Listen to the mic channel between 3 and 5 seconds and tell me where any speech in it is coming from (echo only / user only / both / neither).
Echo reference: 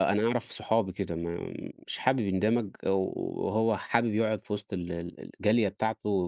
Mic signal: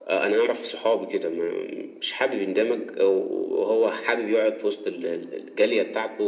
echo only